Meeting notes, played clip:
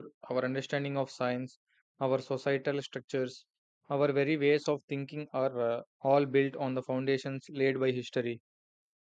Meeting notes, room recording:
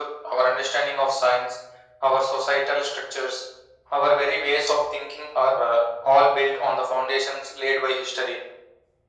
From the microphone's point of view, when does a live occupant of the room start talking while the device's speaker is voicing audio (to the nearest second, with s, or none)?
none